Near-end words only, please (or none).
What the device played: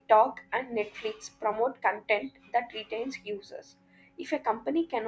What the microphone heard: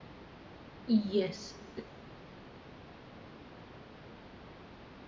Yes.